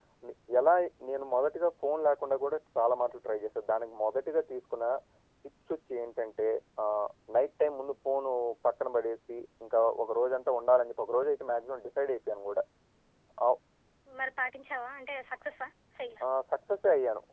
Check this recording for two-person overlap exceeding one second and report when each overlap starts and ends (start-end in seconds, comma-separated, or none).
none